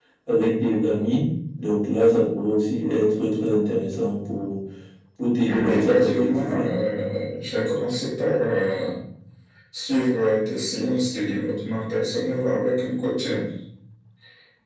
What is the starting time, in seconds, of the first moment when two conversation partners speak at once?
5.5 s

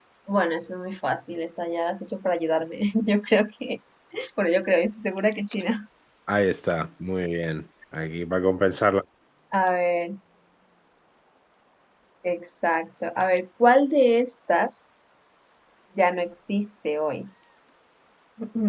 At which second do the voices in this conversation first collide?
none

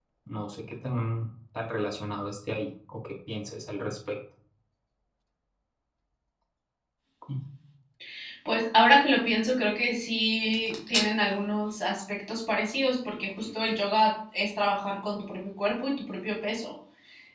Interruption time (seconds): none

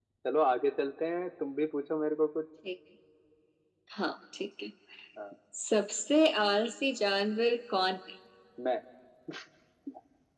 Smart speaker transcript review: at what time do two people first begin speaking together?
none

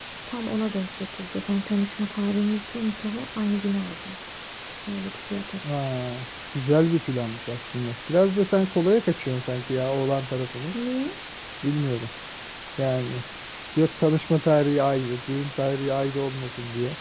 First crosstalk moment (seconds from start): none

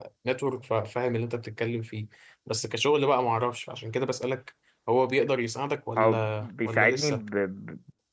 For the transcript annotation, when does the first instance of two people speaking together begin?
6.0 s

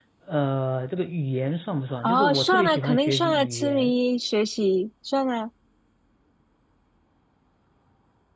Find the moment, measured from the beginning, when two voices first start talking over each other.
2.0 s

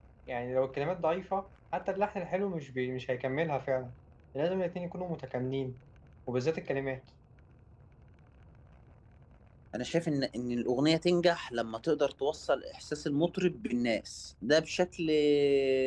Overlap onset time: none

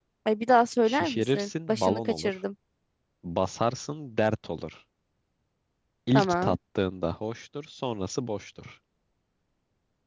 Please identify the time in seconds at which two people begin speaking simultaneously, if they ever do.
0.8 s

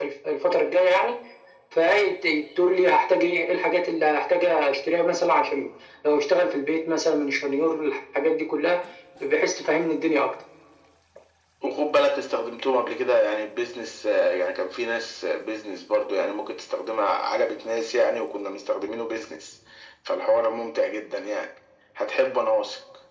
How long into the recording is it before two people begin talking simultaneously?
none

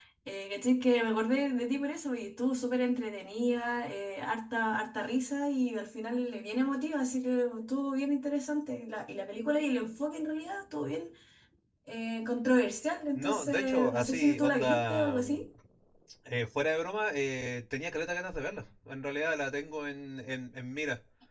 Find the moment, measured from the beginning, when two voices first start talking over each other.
13.2 s

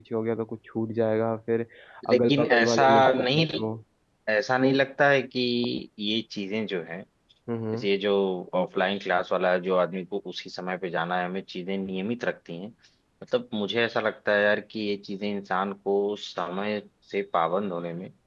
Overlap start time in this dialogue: 2.1 s

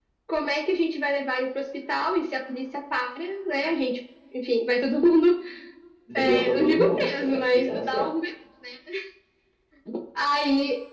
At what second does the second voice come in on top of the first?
6.2 s

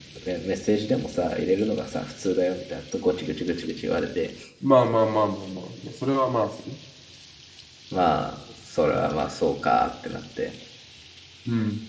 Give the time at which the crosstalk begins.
none

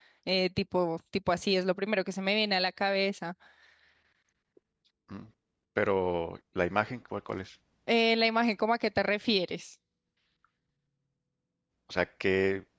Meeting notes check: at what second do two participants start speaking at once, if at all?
none

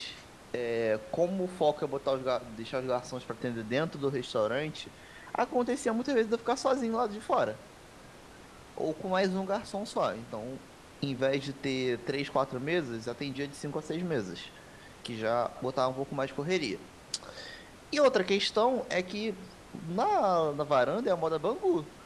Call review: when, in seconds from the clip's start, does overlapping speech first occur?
none

